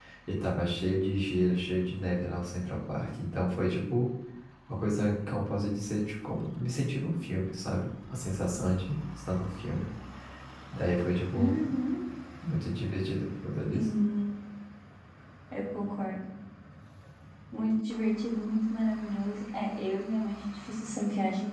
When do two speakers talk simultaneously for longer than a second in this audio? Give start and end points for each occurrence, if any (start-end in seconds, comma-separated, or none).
none